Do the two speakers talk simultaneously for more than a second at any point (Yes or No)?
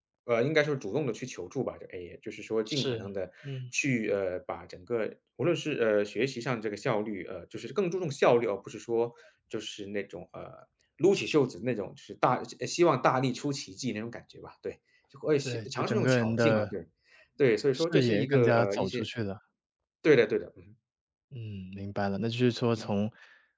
Yes